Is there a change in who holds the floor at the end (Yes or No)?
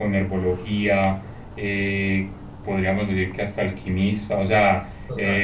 No